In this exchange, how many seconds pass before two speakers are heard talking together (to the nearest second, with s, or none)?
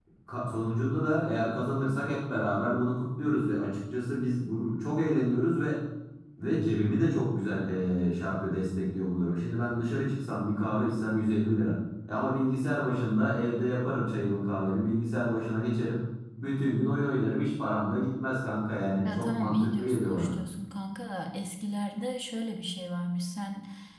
19 s